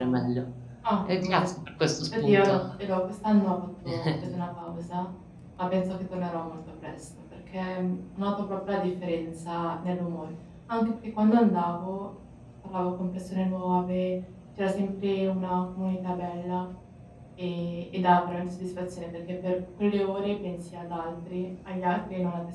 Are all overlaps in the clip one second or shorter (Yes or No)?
Yes